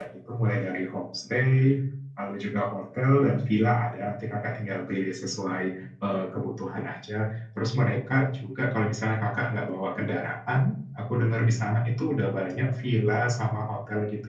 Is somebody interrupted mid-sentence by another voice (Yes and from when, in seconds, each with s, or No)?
No